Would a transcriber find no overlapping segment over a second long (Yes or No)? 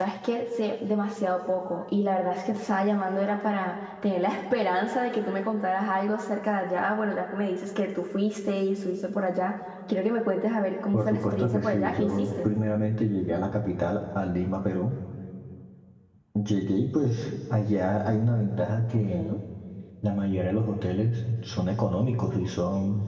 No